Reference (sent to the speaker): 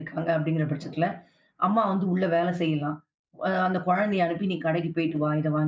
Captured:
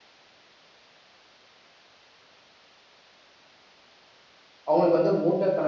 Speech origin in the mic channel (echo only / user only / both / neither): user only